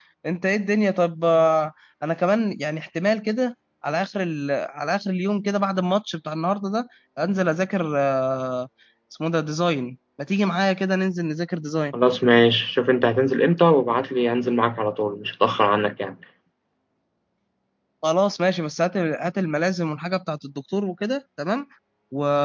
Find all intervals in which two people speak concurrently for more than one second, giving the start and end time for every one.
none

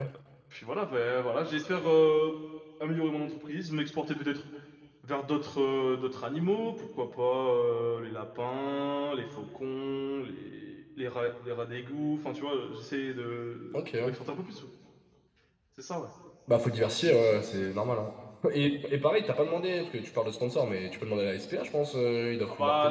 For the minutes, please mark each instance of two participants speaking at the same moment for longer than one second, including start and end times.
none

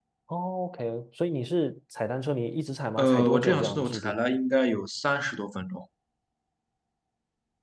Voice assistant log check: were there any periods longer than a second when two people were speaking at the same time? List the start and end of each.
3.0-4.2

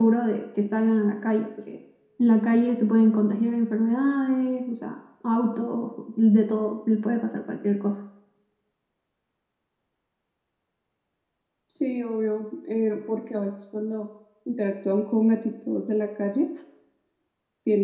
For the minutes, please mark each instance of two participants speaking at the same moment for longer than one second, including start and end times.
none

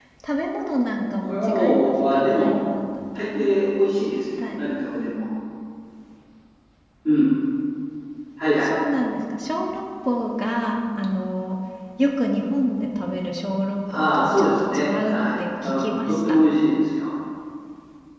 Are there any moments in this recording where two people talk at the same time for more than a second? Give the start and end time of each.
1.3-2.5, 13.9-16.2

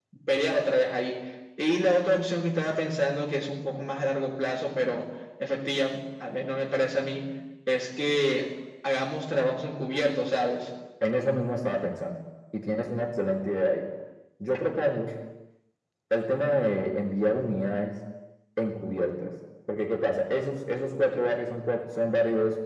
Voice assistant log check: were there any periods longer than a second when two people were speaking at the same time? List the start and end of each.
none

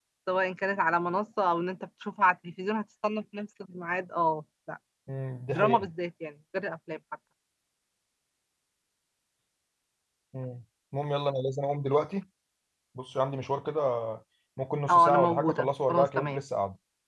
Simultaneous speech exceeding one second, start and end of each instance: 14.9-16.4

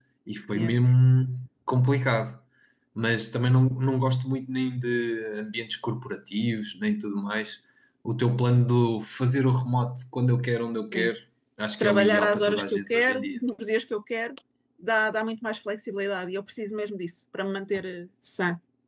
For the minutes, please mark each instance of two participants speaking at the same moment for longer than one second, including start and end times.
11.8-13.4

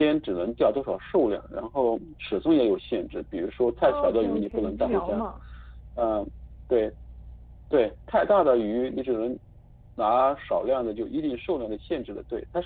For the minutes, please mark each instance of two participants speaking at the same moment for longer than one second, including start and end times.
3.9-5.2

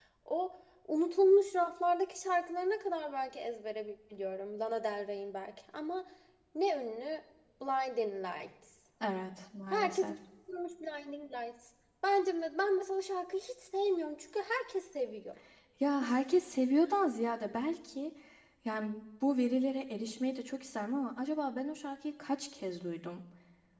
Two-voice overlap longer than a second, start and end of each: none

